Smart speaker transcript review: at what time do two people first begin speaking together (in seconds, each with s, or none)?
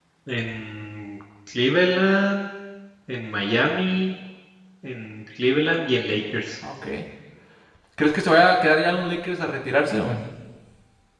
none